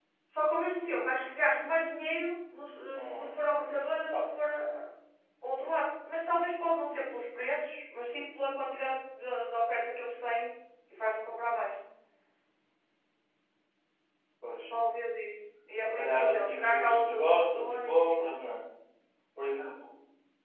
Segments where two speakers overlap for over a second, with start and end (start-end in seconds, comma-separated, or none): 15.8-18.0